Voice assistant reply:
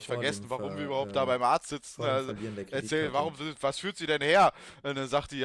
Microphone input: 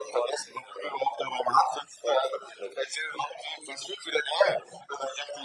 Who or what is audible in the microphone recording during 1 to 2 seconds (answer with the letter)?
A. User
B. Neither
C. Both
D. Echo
D